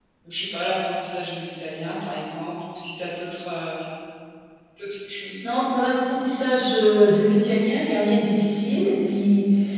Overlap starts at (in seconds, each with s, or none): none